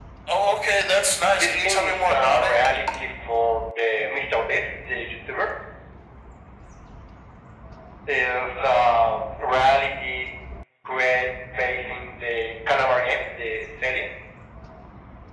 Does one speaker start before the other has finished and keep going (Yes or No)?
Yes